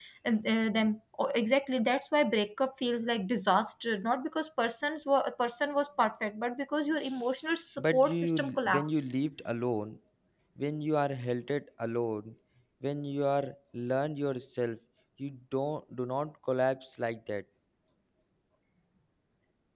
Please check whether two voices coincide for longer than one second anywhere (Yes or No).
Yes